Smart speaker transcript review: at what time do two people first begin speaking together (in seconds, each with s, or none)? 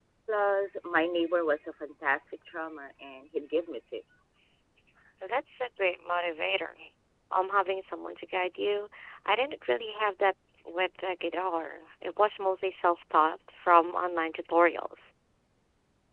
none